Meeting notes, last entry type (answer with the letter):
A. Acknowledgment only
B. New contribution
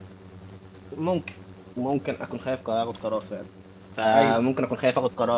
A